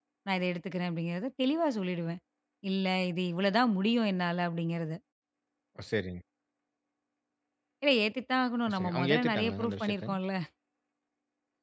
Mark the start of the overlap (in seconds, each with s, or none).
8.7 s